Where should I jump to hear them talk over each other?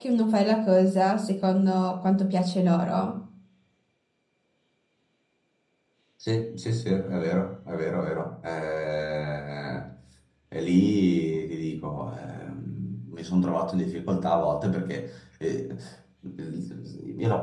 none

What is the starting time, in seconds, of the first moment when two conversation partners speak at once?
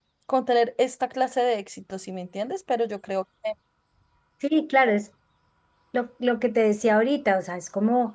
none

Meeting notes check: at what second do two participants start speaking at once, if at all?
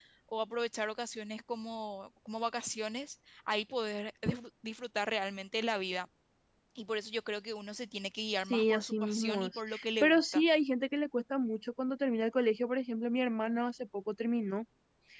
8 s

